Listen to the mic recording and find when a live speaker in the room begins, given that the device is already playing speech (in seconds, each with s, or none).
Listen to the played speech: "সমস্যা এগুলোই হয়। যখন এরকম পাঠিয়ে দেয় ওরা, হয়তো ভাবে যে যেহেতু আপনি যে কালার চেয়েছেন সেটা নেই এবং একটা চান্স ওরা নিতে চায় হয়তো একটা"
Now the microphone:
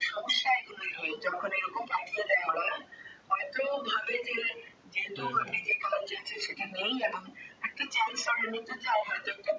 5.2 s